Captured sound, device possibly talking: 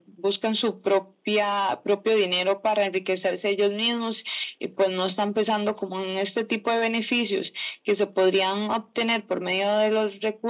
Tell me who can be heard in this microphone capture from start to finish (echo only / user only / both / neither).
echo only